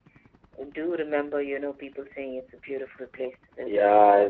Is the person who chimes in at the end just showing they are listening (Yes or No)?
No